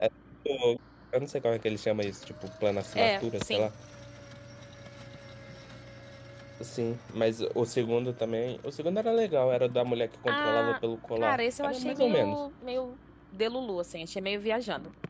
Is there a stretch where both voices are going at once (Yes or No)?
Yes